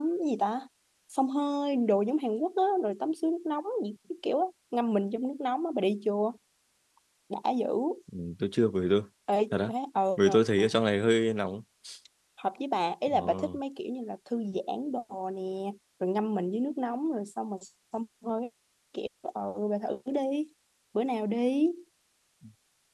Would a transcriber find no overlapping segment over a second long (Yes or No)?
Yes